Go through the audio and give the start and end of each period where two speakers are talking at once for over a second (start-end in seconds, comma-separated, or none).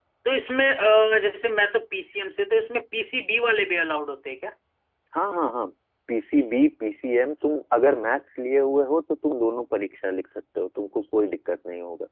none